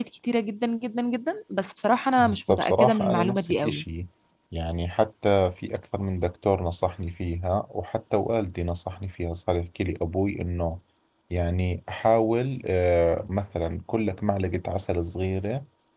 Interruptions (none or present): present